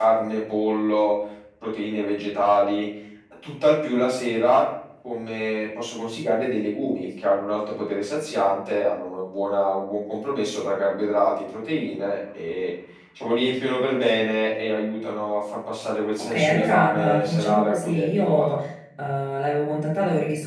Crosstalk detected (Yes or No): Yes